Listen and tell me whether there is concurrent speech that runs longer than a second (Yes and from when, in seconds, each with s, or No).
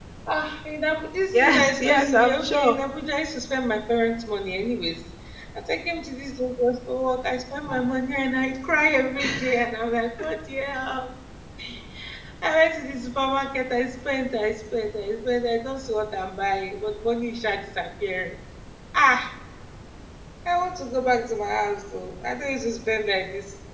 Yes, from 1.3 s